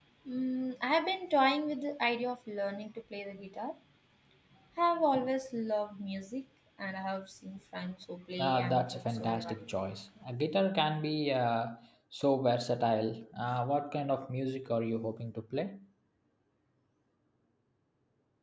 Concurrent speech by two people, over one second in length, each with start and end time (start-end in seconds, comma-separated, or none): 8.4-9.7